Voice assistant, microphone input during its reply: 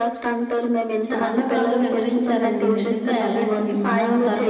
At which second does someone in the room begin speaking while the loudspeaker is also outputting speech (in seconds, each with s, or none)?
1.0 s